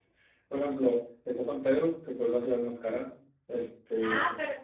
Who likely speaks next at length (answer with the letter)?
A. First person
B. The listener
B